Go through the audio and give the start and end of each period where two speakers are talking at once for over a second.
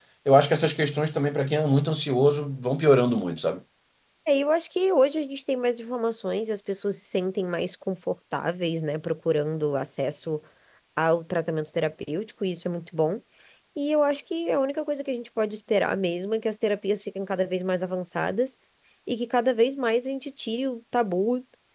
none

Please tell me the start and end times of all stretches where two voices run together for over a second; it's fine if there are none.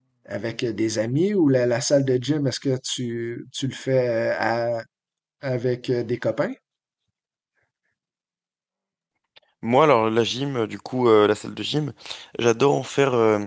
none

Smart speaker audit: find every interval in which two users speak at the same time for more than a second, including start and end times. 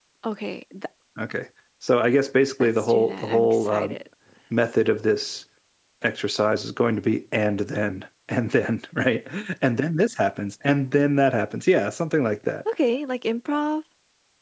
2.6-4.0

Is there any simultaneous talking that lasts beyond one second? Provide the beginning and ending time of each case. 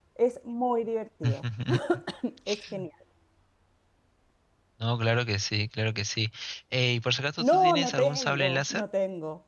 7.4-8.8

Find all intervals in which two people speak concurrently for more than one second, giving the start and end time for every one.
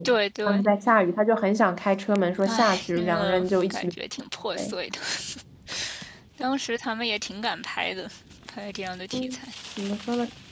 2.4-3.9

